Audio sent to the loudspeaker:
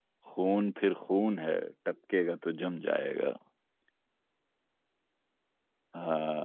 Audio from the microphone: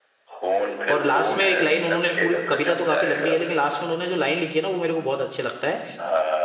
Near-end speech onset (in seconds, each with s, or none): 0.9 s